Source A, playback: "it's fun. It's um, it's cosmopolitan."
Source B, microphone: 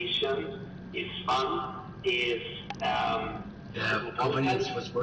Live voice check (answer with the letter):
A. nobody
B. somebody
B